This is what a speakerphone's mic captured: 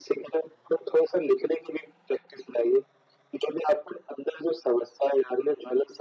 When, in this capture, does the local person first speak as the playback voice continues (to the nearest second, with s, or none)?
none